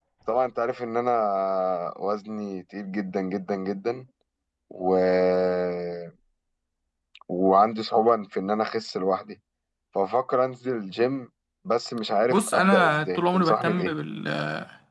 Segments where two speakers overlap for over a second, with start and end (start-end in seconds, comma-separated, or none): 12.3-13.9